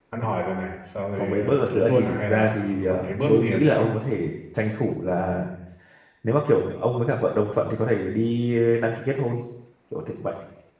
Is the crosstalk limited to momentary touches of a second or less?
No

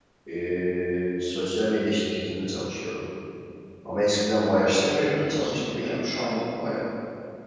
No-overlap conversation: No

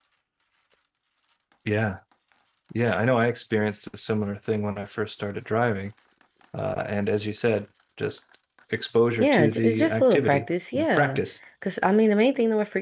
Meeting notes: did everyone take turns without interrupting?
No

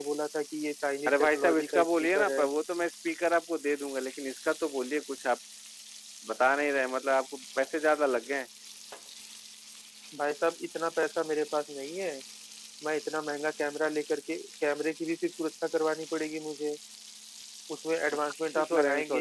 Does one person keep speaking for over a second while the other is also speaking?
Yes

